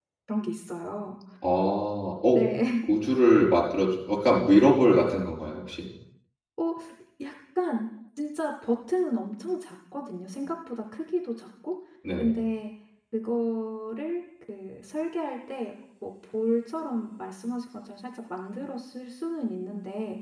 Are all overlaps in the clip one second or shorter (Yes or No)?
Yes